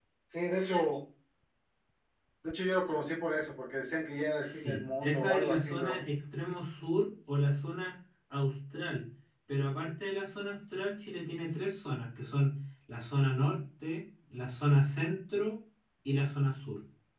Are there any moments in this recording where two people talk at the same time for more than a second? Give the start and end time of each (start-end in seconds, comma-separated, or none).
4.4-6.0